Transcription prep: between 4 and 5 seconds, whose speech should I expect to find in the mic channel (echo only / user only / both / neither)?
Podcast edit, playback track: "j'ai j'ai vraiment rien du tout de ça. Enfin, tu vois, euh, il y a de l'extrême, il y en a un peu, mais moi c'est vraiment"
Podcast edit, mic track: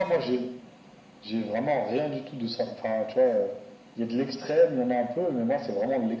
echo only